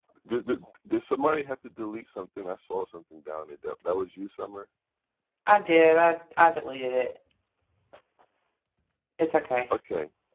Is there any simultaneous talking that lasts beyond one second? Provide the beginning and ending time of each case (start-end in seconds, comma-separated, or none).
none